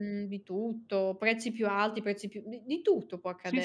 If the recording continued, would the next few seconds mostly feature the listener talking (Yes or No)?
Yes